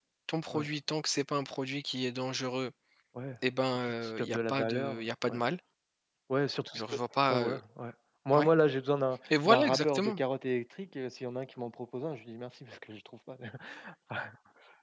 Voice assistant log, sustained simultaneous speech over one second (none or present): present